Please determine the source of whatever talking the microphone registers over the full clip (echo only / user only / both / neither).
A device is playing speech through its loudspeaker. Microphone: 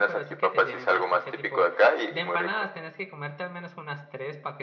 both